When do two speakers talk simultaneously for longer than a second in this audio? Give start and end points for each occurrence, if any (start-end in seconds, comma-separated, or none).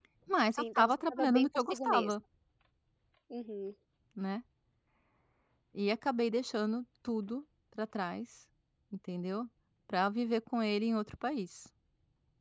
0.5-2.1